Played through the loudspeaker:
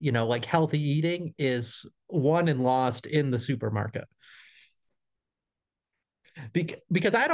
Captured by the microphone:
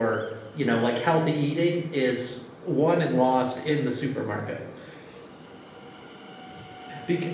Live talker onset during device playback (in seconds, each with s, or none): none